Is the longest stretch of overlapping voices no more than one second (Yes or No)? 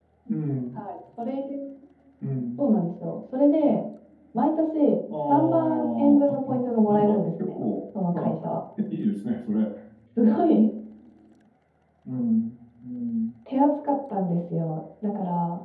No